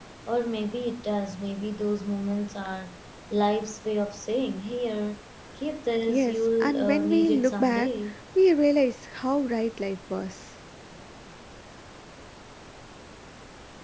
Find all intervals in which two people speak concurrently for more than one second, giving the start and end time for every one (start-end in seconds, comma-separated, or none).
6.1-7.9